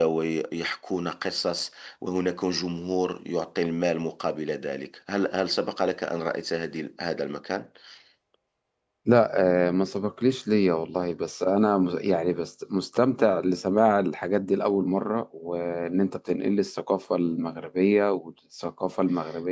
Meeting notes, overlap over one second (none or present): none